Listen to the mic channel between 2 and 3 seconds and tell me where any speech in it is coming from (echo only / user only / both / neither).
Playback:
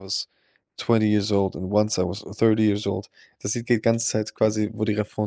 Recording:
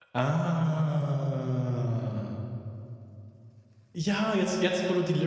user only